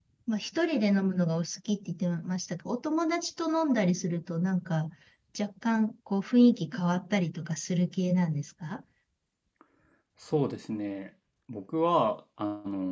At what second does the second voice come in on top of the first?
none

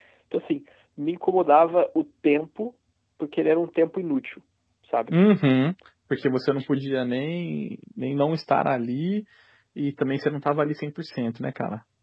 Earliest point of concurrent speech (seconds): none

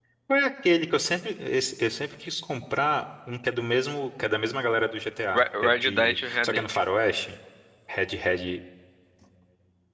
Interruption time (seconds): 5 s

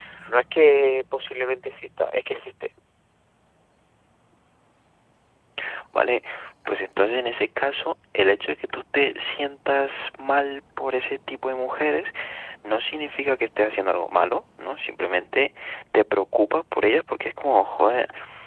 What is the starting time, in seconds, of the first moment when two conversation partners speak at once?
none

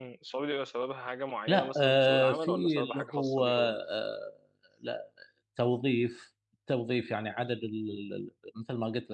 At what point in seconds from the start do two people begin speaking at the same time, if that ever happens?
1 s

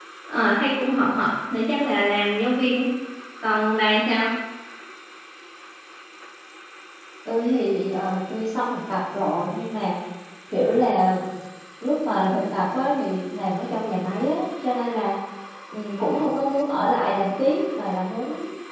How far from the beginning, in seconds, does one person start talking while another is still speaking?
none

